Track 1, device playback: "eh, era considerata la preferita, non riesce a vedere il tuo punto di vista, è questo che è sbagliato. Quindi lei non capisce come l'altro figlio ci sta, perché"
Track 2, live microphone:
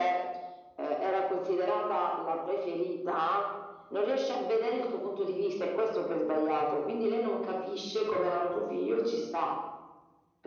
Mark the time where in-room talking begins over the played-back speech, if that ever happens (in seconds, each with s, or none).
none